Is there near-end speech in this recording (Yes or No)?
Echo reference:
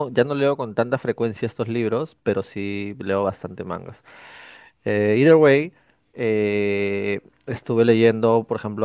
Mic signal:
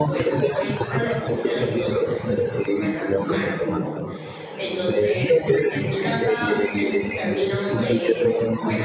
Yes